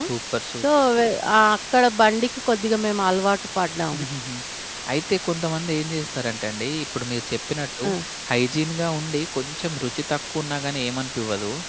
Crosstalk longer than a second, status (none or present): none